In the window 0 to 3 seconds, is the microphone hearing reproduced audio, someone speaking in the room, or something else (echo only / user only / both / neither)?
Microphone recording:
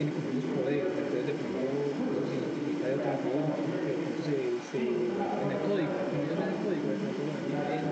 both